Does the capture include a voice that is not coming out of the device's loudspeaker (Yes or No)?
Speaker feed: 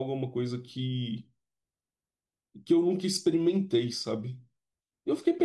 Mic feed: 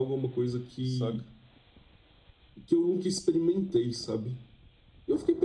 Yes